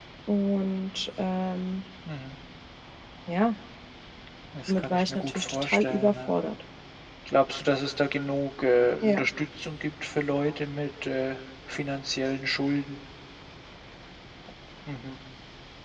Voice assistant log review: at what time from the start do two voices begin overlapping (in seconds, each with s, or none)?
4.7 s